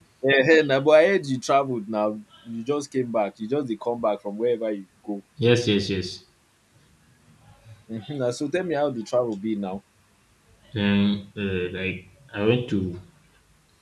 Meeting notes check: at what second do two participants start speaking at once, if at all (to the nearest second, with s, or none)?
none